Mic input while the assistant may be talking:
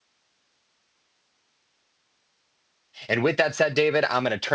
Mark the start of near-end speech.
3 s

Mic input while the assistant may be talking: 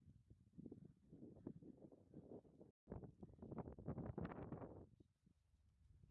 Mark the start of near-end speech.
none

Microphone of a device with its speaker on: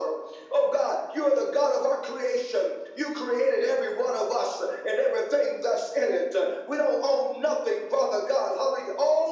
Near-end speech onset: none

